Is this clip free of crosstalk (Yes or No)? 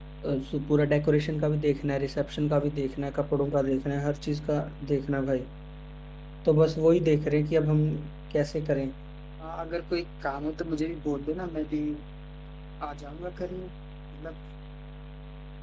Yes